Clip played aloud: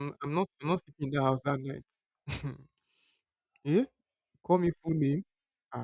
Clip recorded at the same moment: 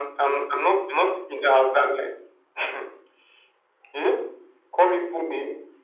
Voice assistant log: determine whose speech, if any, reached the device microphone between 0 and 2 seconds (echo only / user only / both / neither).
echo only